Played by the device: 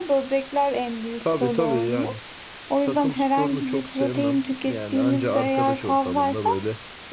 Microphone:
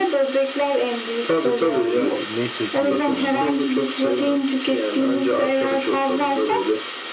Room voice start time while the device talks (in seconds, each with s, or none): 1.8 s